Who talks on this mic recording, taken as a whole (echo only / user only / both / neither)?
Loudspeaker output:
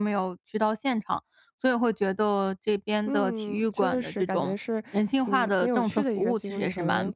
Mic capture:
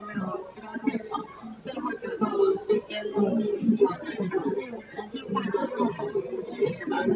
both